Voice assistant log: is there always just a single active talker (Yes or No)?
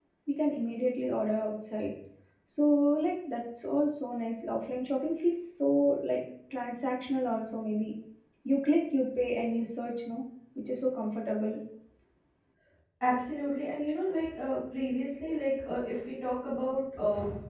Yes